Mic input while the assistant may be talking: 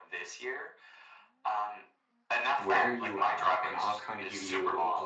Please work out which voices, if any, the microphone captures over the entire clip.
both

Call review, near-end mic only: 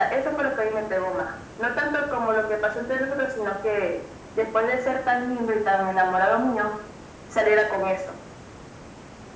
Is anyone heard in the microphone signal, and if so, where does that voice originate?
echo only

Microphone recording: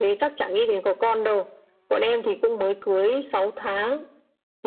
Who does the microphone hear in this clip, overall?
echo only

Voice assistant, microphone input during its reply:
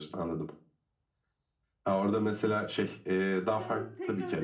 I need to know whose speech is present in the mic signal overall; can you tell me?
both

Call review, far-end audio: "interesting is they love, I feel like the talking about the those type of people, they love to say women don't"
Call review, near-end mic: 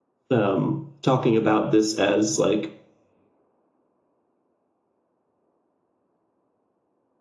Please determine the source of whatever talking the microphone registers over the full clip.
user only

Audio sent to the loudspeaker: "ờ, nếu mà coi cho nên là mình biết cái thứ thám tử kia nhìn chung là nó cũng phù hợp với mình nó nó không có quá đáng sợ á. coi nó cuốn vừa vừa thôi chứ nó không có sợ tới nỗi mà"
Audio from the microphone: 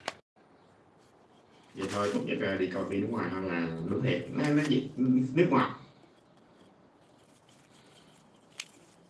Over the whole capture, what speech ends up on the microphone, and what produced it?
user only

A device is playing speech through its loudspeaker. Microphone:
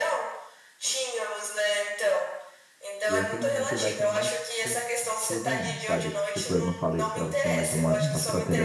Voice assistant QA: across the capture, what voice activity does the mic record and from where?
both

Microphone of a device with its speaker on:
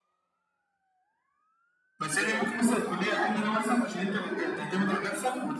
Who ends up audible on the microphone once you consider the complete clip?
both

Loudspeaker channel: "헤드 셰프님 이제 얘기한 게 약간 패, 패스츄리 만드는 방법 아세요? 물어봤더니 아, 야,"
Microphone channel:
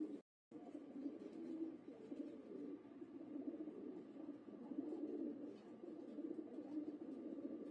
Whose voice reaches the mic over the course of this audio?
neither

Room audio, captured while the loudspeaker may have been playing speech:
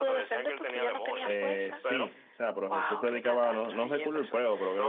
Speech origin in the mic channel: both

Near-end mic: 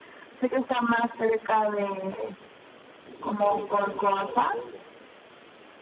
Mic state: both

